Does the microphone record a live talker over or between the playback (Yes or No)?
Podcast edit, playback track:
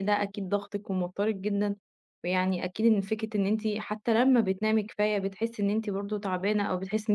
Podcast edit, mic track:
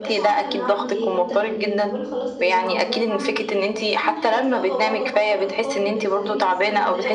Yes